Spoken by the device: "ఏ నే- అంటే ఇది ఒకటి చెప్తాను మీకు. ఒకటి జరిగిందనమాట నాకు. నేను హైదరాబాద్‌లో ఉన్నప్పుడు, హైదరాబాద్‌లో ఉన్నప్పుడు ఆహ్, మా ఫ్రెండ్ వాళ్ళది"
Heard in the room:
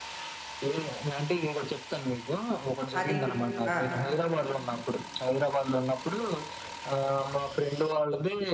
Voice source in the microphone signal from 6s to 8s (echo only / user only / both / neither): echo only